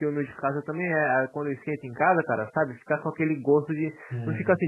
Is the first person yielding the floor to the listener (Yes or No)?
No